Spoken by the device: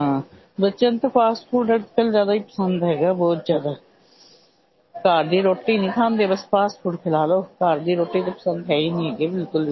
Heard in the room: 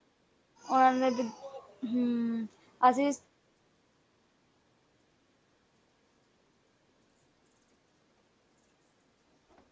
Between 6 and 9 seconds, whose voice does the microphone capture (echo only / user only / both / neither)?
neither